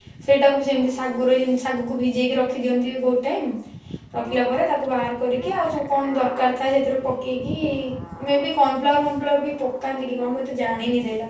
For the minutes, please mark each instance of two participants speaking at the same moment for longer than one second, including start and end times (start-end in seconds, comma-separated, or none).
none